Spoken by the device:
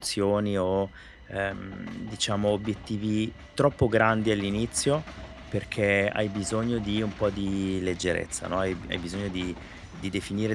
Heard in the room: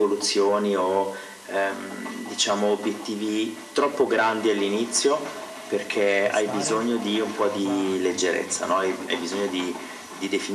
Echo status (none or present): present